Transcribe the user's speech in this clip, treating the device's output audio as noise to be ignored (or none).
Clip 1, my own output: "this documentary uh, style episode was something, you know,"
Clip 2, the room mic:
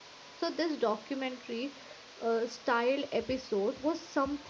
none